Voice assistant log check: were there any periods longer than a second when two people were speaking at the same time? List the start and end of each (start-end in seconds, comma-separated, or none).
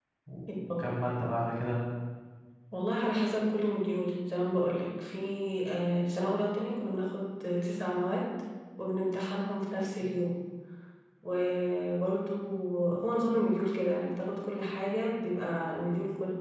none